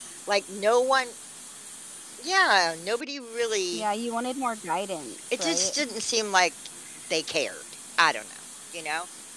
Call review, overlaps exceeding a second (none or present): none